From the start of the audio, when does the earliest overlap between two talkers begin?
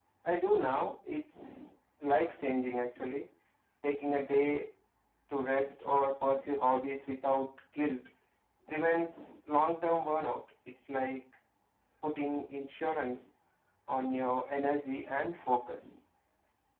none

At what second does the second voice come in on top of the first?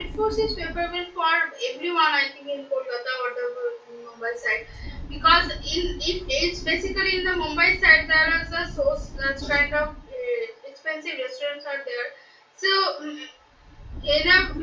none

